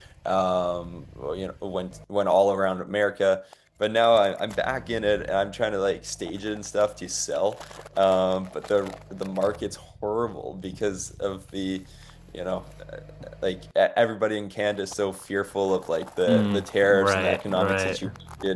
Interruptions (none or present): present